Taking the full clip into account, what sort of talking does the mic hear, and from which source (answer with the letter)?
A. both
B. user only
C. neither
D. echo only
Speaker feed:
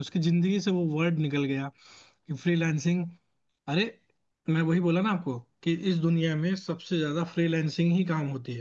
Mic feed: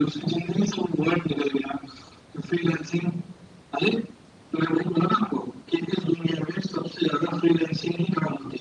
D